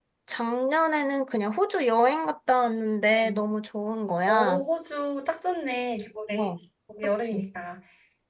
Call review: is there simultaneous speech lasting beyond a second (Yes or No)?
No